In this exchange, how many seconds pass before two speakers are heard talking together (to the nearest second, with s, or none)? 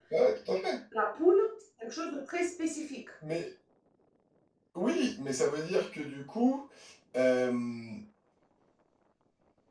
none